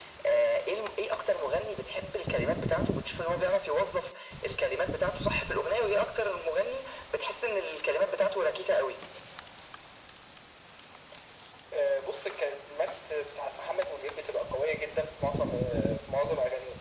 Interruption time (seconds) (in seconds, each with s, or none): none